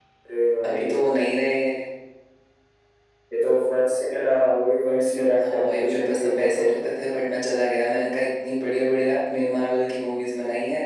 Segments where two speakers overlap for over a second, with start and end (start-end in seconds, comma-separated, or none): 5.4-6.7